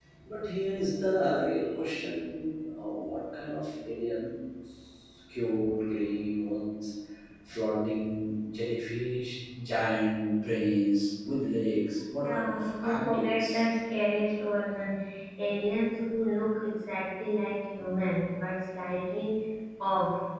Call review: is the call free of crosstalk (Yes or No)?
No